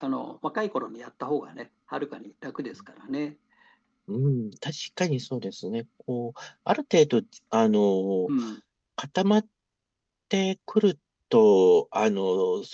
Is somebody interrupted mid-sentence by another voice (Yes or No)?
No